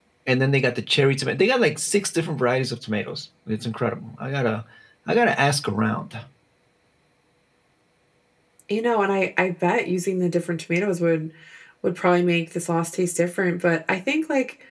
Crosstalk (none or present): none